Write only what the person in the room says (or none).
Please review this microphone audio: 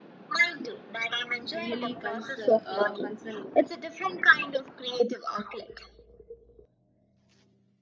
really cons- uh, concerning.